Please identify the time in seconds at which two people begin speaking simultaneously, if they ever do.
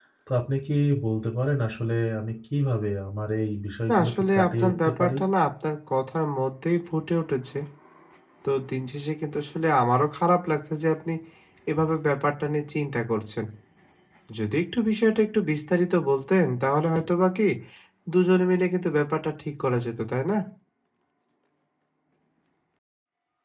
4 s

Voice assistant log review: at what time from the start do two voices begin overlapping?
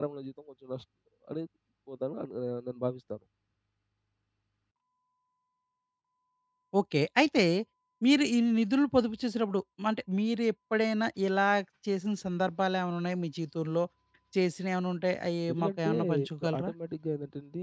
15 s

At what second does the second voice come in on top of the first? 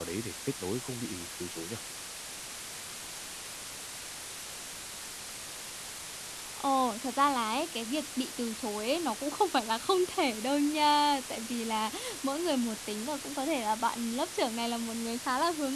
none

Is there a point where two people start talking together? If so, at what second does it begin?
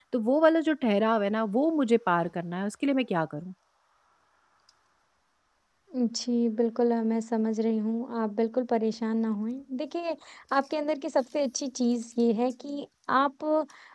none

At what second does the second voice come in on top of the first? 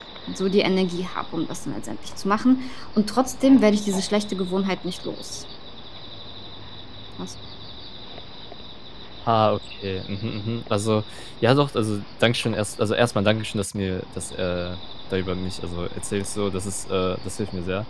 none

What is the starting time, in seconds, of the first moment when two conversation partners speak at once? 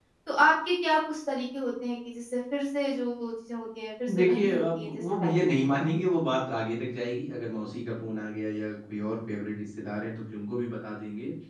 4 s

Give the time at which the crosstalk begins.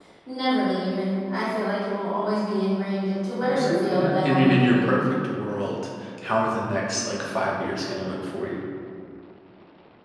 3 s

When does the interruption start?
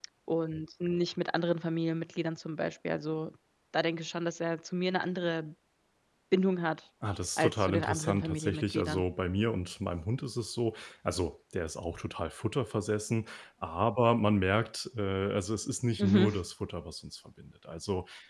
7 s

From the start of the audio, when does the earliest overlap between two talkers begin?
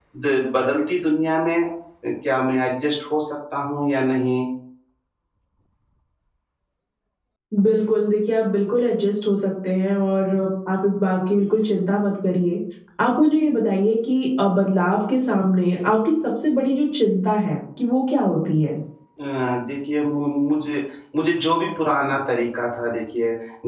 none

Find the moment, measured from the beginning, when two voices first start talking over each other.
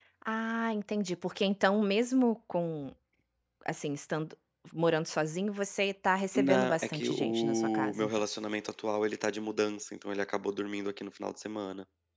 6 s

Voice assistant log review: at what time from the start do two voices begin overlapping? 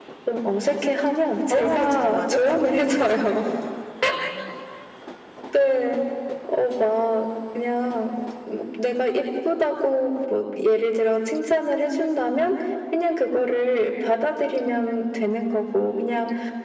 2 s

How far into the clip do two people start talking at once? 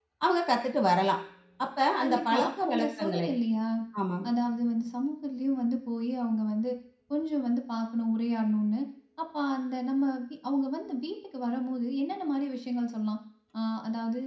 2 s

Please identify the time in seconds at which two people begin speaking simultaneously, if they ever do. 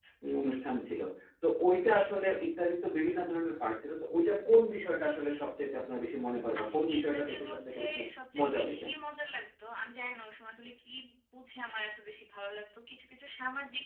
7 s

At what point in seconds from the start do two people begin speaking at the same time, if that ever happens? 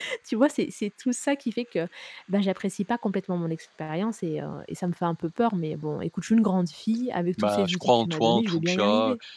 7 s

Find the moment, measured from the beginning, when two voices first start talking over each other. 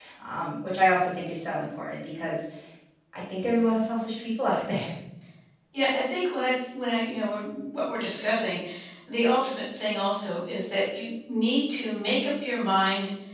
none

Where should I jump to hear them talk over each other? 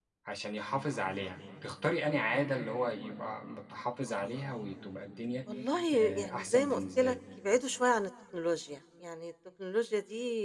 6 s

